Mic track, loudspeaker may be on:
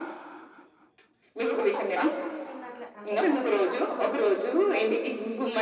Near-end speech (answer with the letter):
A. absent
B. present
B